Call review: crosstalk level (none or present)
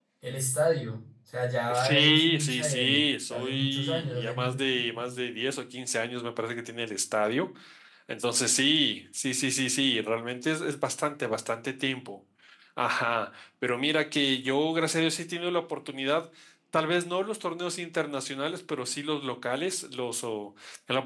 present